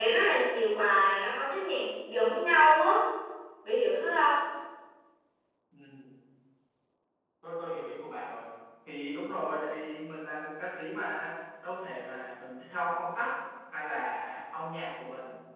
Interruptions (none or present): none